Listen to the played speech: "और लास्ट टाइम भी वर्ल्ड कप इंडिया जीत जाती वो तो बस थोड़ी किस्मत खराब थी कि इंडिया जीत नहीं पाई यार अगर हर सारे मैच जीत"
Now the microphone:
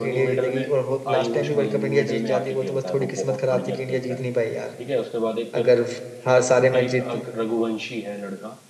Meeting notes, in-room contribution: present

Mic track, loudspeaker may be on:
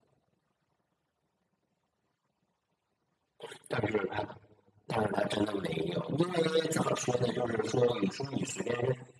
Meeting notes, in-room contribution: present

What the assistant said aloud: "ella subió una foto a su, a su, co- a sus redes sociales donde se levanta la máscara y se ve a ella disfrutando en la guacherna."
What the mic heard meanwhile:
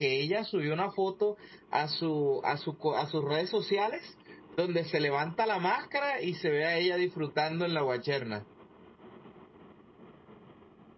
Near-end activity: none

